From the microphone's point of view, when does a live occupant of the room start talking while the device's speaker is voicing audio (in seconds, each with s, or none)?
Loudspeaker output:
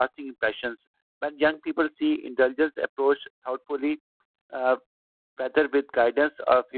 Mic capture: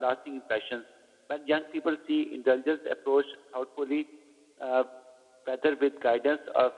none